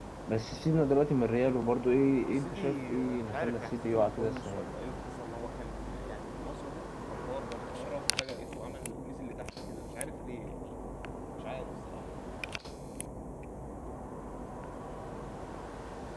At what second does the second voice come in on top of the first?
2.3 s

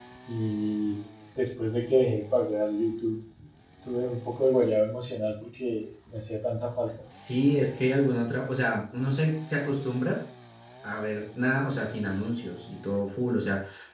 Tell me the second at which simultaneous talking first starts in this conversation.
none

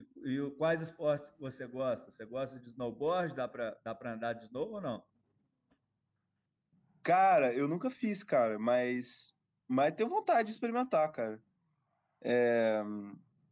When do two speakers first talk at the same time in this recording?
none

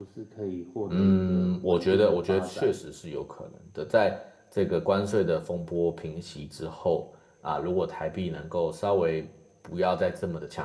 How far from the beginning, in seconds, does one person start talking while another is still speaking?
0.9 s

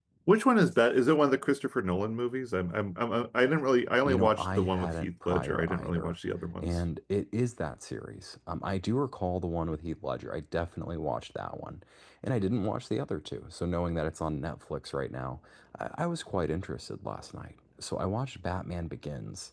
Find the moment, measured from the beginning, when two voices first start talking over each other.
4.0 s

